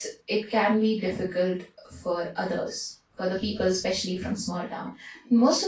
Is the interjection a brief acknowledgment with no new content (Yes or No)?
Yes